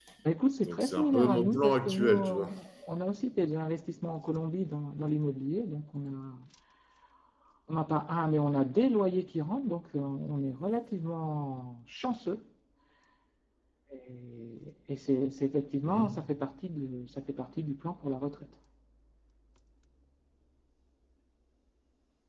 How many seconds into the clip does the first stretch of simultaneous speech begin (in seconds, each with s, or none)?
0.6 s